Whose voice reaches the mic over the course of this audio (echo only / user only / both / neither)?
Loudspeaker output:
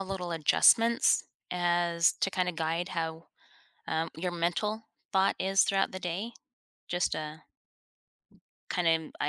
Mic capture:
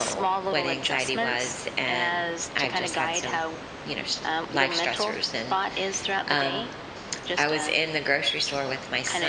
both